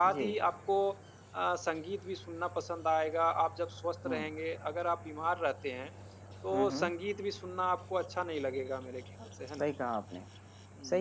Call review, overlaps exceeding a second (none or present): none